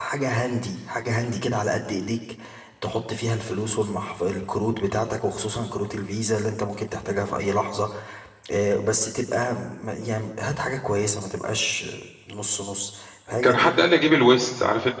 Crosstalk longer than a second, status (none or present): none